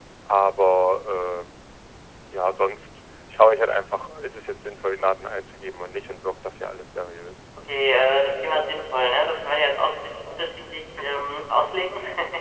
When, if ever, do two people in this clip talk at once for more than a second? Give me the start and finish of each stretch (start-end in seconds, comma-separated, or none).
none